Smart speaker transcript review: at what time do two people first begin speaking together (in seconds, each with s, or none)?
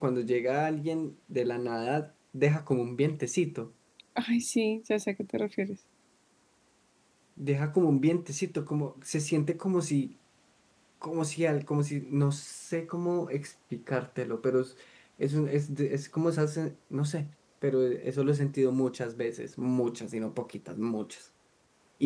none